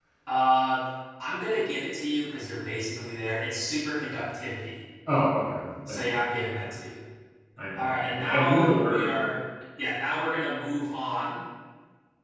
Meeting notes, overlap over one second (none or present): present